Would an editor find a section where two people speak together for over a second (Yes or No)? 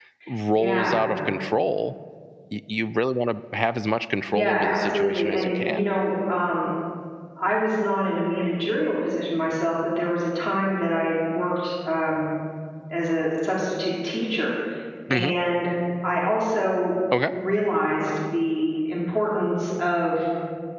Yes